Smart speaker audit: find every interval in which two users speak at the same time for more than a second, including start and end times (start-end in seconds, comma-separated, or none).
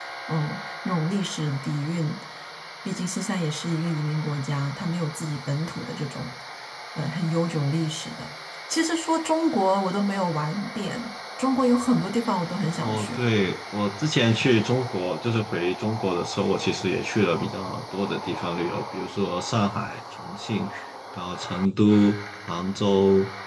none